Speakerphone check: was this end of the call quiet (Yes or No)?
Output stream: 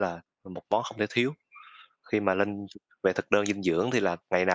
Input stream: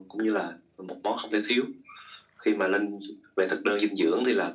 Yes